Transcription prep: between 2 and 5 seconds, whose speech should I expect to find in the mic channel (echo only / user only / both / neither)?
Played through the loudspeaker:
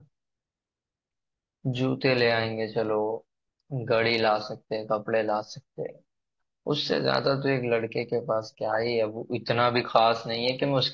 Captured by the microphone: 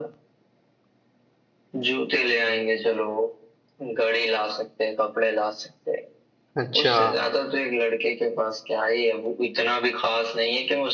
echo only